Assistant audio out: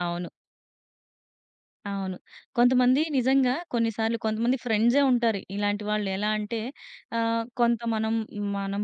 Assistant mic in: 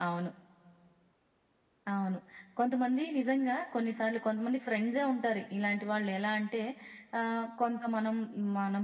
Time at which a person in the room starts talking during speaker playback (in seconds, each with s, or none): none